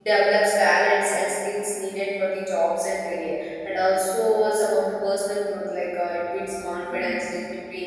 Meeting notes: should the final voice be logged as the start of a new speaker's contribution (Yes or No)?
No